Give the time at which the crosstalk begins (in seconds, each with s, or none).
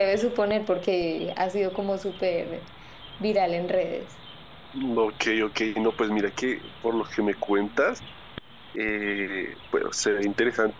none